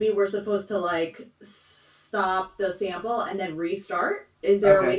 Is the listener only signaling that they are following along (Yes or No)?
Yes